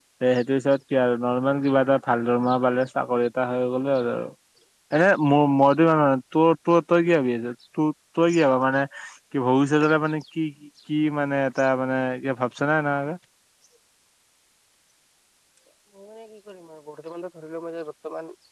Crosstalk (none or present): none